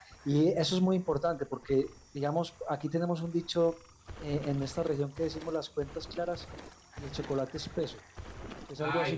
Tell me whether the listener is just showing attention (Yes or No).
No